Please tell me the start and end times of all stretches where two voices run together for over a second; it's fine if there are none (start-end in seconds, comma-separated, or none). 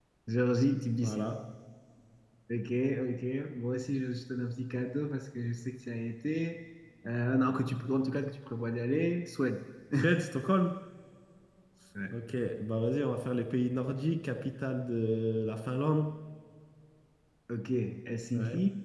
none